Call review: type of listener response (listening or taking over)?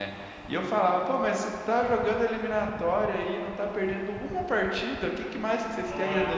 listening